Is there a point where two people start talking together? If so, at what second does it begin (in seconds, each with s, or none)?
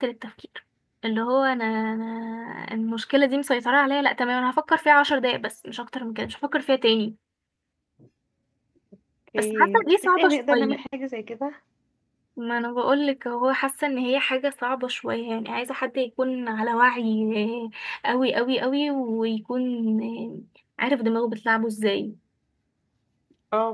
9.4 s